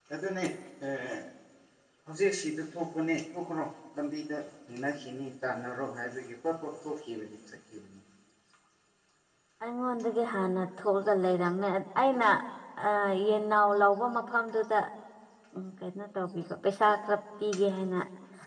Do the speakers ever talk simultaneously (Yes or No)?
No